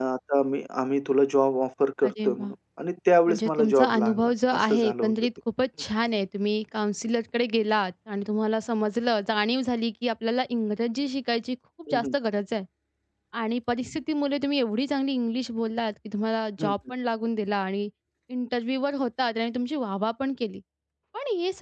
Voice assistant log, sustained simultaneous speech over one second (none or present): present